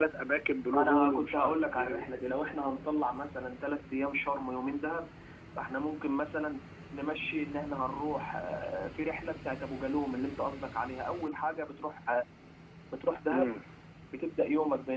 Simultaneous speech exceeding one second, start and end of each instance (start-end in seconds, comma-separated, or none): 0.8-2.0